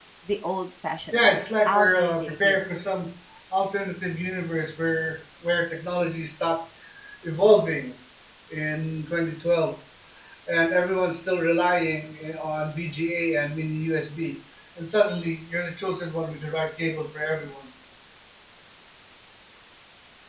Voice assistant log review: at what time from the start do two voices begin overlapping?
1.1 s

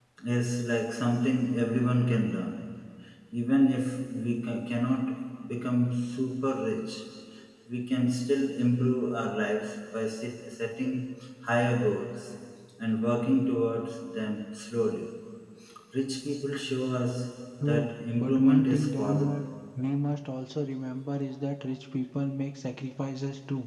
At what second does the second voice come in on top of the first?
17.6 s

